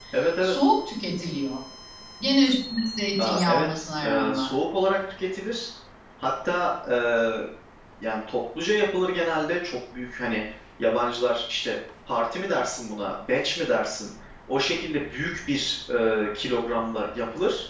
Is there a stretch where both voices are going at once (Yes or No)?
Yes